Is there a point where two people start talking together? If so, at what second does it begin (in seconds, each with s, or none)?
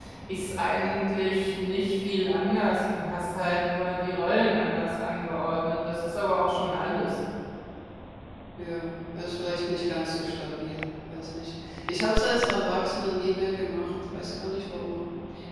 none